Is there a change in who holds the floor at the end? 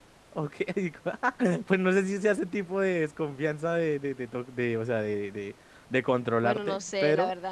Yes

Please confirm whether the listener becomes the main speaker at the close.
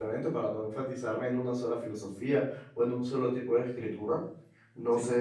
No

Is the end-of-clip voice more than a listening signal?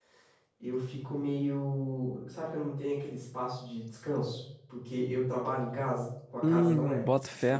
Yes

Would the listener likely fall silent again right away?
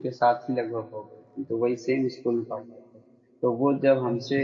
Yes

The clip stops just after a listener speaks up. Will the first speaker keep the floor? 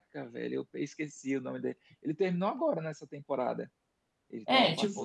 No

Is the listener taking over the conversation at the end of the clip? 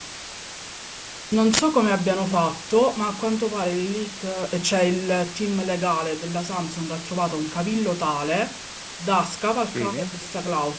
No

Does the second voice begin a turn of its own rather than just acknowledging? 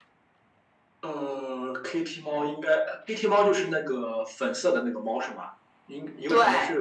No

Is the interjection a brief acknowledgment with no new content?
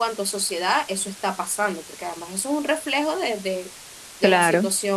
Yes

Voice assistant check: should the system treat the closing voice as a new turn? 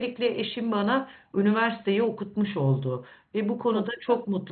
No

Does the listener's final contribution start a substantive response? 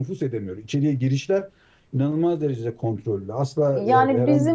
Yes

